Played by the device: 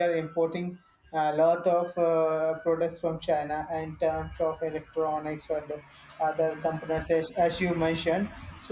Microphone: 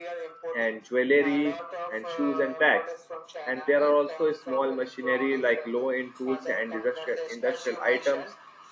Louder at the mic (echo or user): user